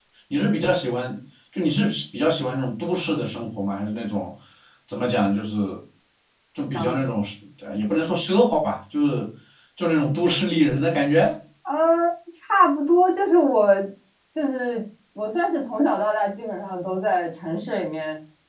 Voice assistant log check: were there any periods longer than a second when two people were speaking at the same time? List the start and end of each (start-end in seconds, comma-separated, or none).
none